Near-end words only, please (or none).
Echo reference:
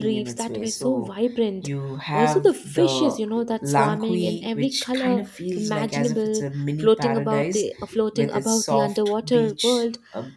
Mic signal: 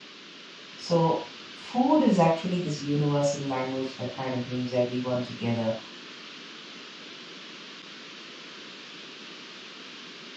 so food is actually this universal language that kind of brings everyone together